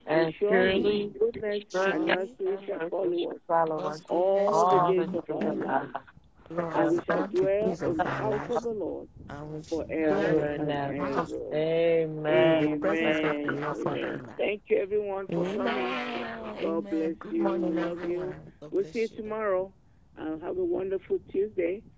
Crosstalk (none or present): present